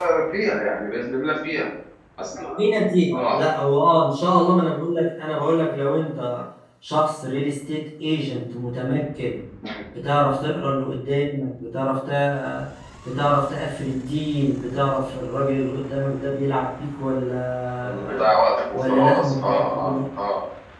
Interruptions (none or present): present